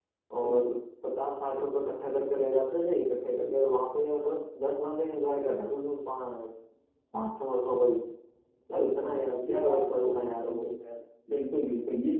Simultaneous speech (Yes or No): Yes